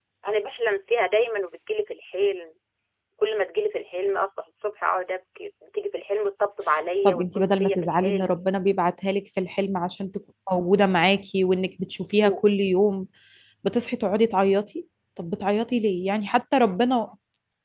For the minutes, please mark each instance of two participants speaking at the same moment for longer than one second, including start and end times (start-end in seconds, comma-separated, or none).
7.0-8.3